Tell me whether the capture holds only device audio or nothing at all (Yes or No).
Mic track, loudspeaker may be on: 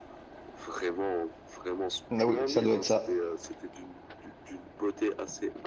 No